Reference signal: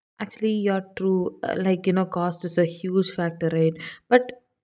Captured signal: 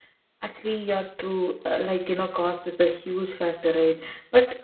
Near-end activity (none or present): none